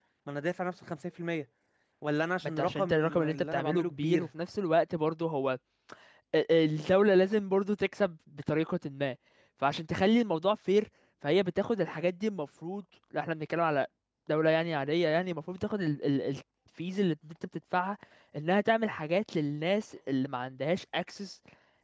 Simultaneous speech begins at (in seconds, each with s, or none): 2.6 s